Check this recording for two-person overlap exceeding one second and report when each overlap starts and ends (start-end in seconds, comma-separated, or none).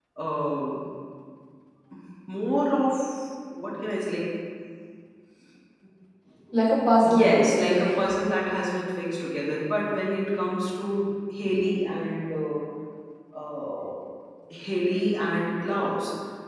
7.0-8.3